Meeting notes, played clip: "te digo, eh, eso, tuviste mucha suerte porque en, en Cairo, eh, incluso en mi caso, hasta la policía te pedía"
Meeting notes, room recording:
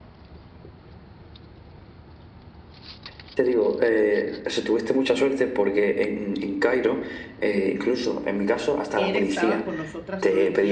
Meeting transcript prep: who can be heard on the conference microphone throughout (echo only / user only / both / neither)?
both